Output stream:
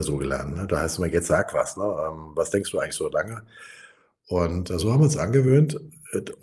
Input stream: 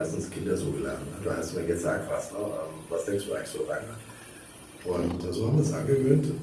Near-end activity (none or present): none